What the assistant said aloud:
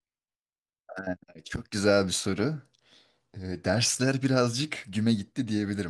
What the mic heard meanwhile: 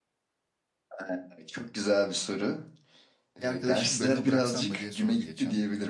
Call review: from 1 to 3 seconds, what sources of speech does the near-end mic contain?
echo only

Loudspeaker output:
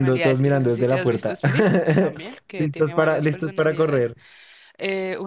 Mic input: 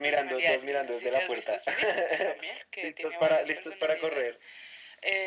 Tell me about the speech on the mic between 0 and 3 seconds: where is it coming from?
echo only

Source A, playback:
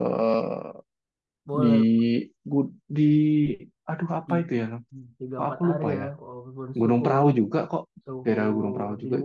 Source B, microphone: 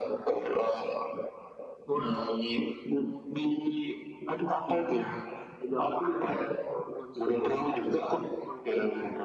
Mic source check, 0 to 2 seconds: echo only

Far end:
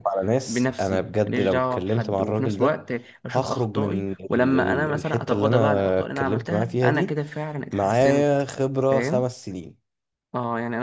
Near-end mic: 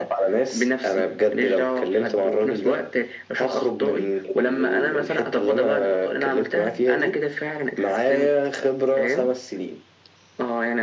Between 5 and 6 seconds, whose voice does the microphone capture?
echo only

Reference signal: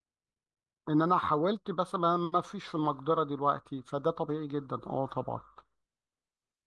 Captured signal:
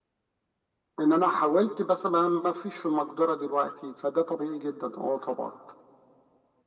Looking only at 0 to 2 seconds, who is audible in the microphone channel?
echo only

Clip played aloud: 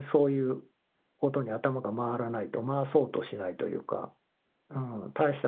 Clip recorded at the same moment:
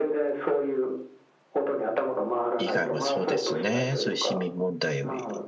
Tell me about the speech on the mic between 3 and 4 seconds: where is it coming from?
both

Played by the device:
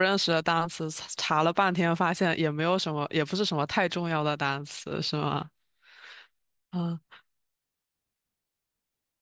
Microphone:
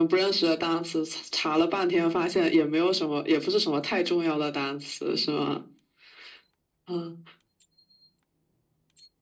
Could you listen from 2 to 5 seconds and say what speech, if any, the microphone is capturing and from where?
echo only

